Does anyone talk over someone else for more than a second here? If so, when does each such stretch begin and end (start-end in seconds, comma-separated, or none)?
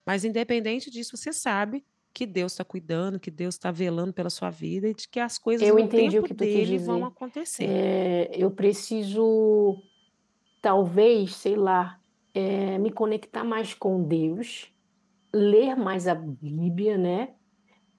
5.6-7.1